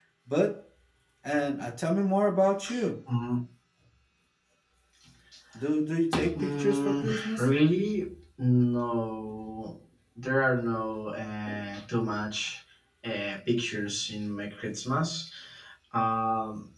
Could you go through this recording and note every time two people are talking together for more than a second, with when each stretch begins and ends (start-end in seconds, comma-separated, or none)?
6.1-7.5